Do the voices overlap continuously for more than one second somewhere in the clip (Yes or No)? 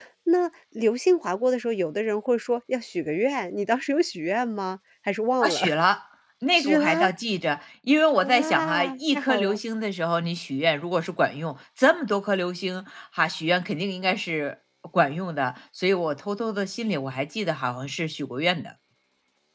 Yes